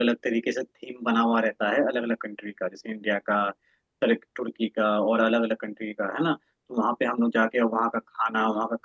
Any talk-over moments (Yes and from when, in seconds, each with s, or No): No